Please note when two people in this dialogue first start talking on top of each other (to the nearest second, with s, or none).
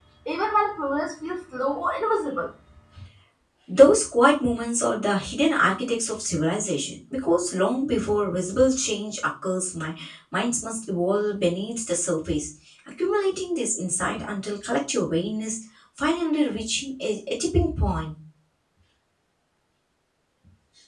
none